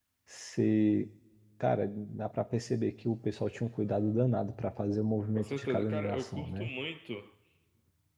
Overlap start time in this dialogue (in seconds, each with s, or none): 5.2 s